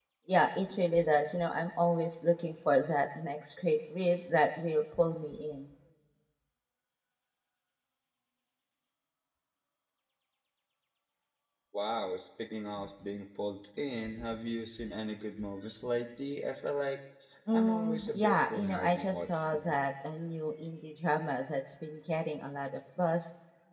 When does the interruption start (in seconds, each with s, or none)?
17.5 s